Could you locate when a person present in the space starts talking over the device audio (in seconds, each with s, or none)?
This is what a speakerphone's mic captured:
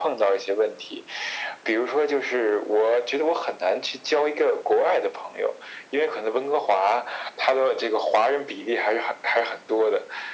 none